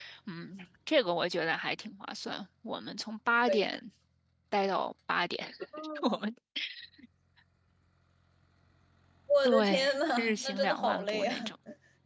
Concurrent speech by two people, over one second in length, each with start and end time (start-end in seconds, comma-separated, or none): 9.4-11.3